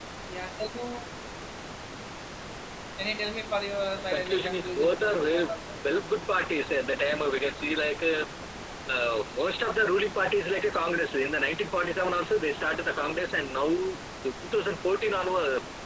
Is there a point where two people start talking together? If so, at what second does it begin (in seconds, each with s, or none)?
3.9 s